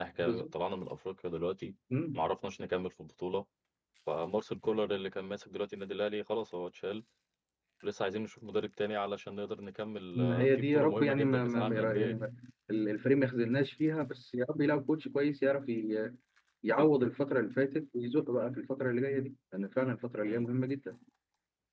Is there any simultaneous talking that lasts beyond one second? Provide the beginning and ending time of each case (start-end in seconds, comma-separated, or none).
10.2-12.2